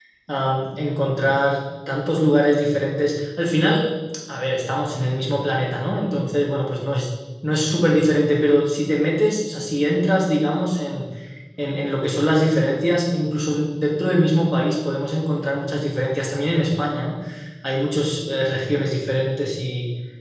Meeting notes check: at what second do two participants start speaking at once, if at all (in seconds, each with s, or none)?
none